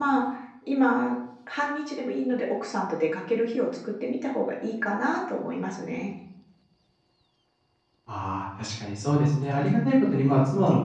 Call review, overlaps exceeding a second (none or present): none